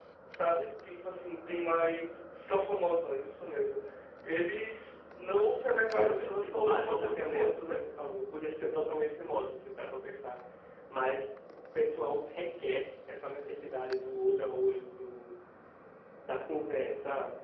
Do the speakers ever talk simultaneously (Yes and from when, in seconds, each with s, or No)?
Yes, from 5.8 s